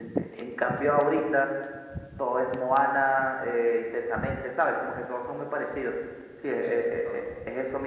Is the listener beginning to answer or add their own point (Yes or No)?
No